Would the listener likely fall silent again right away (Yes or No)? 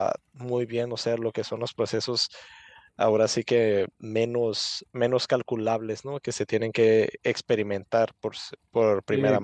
No